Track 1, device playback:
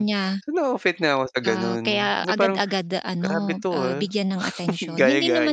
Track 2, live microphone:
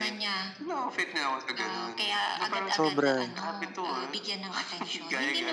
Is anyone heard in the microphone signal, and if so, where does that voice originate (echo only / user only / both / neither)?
both